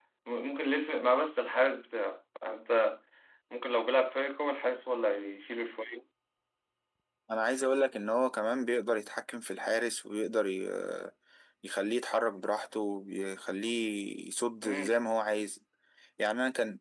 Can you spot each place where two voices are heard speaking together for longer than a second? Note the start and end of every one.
none

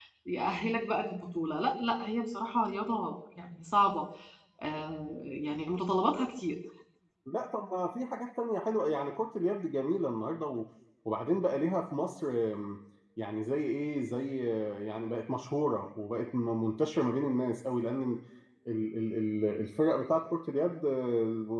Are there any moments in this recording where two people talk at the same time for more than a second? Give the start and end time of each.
none

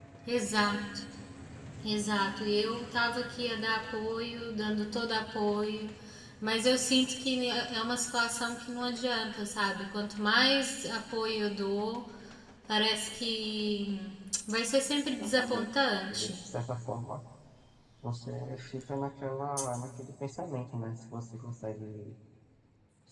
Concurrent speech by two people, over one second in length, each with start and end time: 15.1-16.4

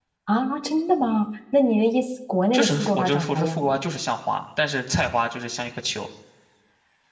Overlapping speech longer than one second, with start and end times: 2.5-3.8

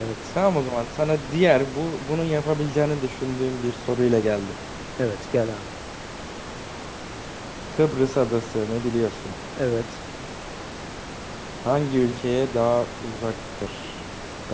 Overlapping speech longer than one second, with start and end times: none

